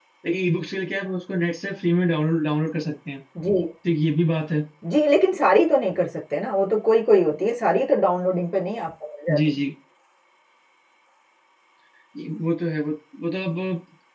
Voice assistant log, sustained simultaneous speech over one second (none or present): none